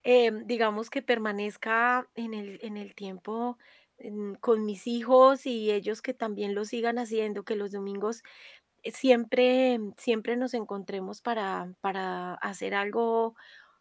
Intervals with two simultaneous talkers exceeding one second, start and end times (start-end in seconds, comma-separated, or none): none